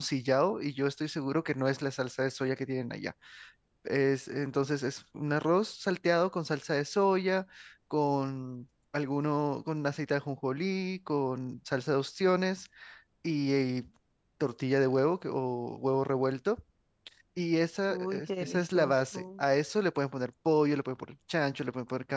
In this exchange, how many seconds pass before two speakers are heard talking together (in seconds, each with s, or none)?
17.9 s